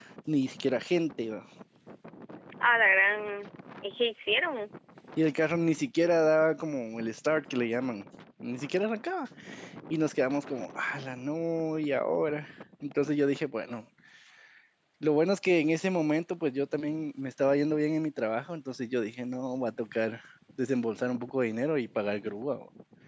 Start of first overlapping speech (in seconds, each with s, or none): none